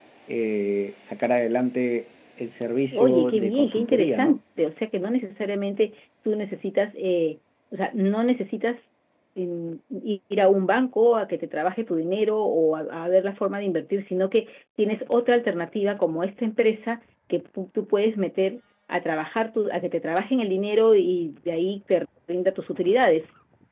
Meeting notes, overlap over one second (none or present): present